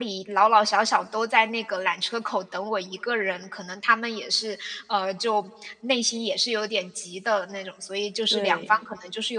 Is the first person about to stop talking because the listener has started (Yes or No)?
No